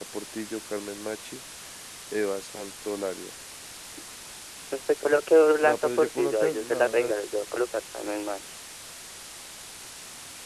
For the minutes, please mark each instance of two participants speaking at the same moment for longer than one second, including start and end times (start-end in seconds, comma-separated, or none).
5.6-7.1